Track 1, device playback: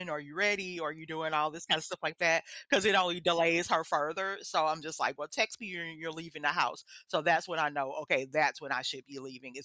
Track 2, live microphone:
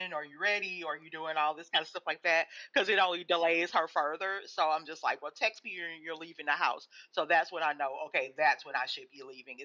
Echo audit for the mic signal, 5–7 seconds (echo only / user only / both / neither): echo only